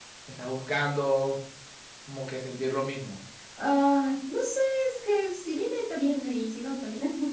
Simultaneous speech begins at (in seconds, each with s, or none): none